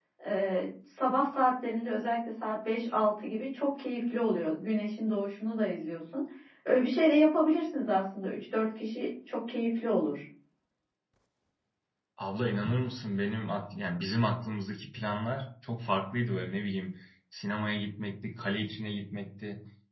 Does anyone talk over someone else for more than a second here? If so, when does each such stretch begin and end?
none

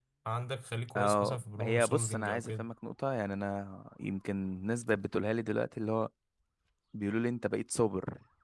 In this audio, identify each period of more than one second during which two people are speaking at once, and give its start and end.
0.9-2.4

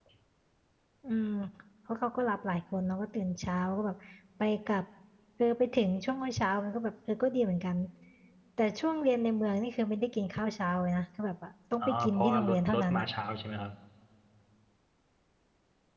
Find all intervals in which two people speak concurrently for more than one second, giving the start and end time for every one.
11.8-13.1

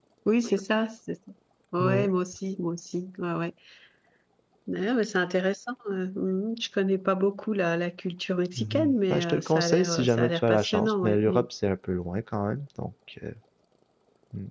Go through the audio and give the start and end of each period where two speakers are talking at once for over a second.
8.6-11.4

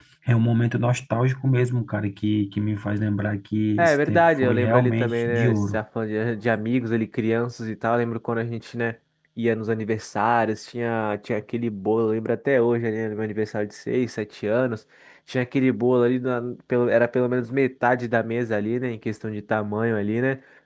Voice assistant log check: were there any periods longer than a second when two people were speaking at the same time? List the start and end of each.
3.8-5.8

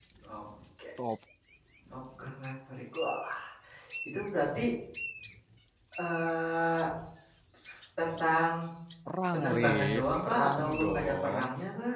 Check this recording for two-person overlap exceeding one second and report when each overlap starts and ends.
9.3-11.4

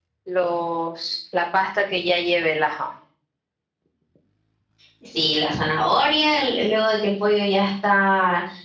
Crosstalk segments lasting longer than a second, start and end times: none

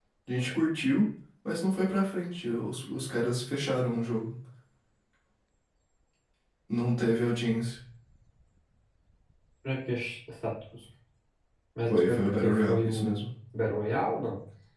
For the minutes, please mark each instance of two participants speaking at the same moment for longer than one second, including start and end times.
11.9-13.3

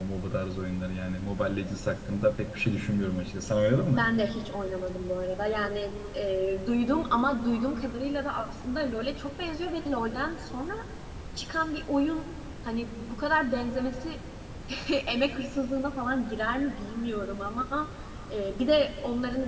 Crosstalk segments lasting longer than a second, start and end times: none

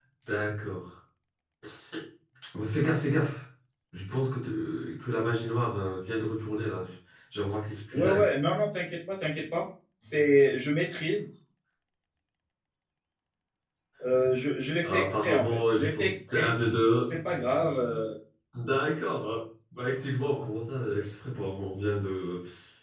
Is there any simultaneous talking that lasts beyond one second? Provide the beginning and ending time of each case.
14.8-16.5

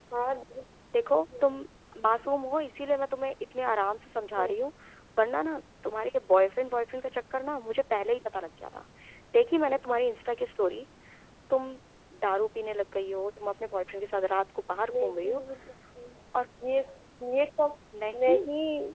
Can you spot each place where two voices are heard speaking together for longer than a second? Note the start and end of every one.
none

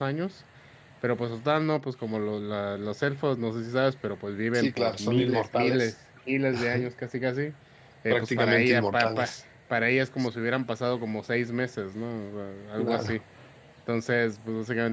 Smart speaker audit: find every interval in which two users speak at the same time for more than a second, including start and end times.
4.5-5.9, 8.1-9.3

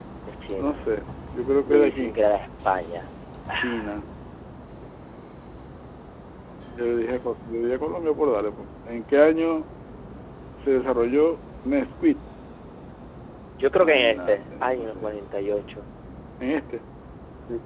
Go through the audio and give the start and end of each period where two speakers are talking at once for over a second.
13.8-15.1

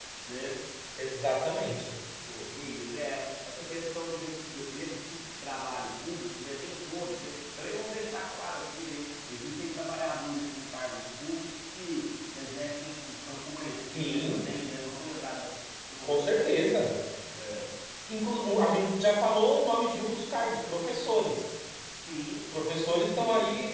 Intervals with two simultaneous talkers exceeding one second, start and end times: none

